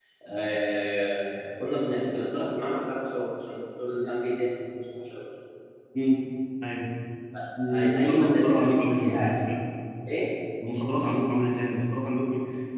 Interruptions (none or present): present